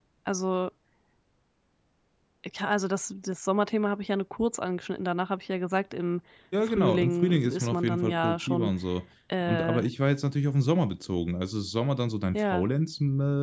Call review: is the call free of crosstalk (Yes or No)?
No